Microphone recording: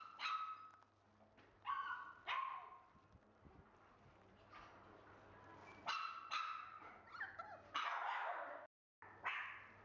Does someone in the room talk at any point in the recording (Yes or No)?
No